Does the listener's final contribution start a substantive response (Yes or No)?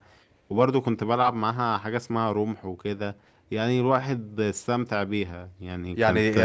Yes